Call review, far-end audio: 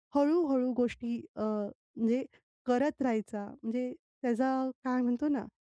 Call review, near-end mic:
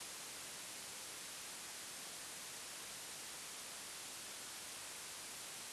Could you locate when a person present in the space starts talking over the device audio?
none

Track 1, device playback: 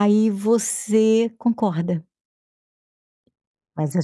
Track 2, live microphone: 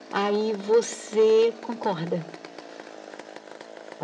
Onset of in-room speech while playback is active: none

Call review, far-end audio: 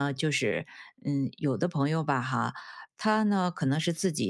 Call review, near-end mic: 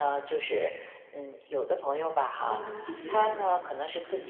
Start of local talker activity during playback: 2.4 s

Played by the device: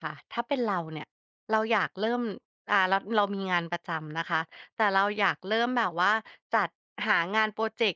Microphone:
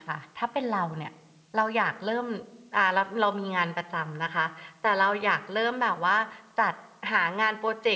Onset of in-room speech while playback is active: none

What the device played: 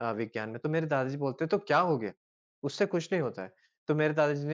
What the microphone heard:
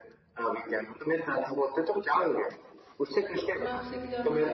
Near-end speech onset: 3.5 s

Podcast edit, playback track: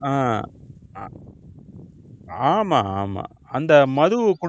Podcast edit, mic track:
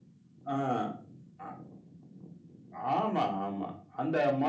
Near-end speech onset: none

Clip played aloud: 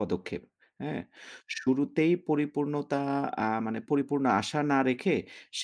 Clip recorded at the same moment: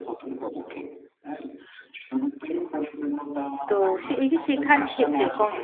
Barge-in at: 3.7 s

